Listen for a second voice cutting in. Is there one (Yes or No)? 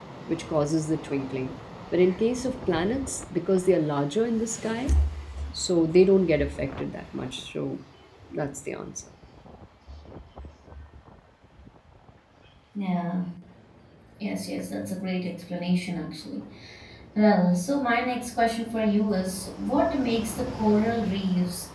No